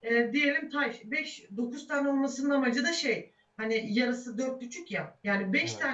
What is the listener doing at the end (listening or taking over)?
listening